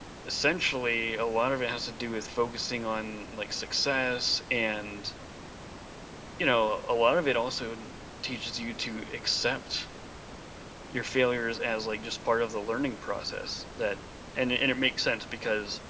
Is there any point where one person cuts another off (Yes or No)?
No